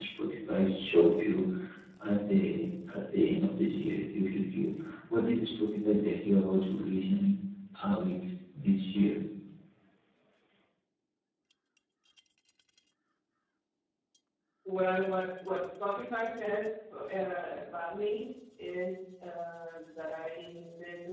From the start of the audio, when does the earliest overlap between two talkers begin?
none

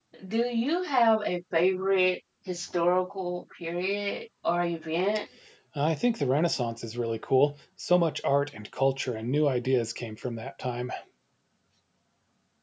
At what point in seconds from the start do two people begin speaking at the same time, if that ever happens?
none

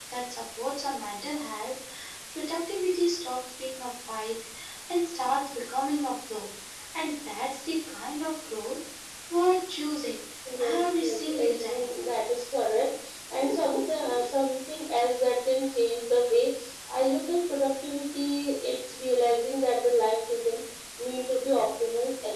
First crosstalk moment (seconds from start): 10.6 s

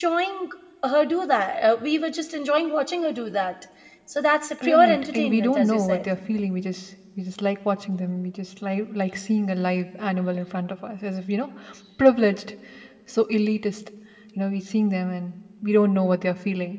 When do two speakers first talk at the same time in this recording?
4.6 s

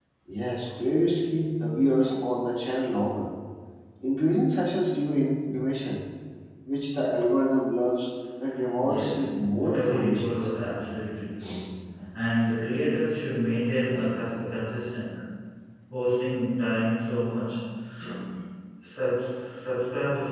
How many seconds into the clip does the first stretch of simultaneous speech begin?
8.8 s

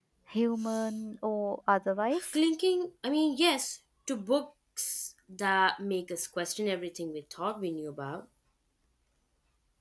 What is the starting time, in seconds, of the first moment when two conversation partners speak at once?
none

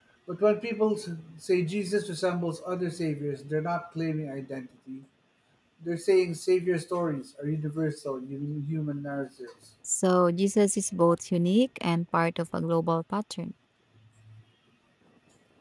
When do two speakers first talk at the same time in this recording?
none

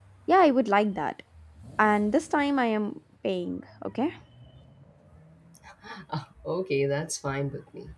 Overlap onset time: none

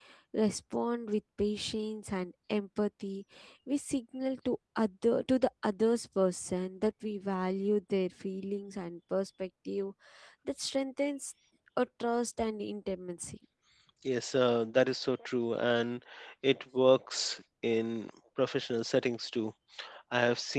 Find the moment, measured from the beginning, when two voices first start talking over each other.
none

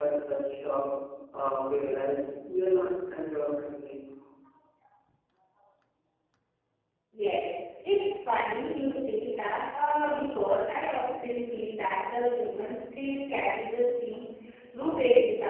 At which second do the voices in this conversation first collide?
none

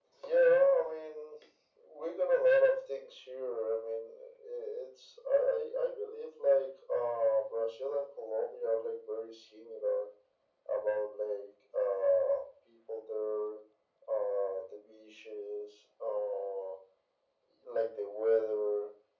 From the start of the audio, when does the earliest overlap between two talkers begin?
none

